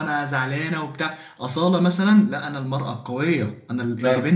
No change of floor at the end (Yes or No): Yes